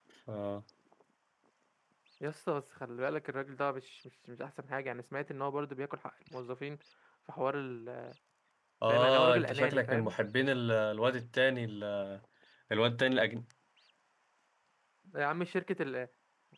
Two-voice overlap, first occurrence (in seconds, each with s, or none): 8.9 s